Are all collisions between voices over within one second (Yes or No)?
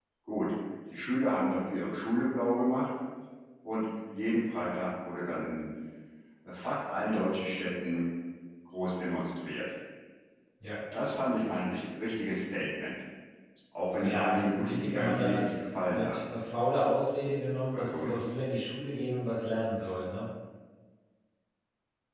No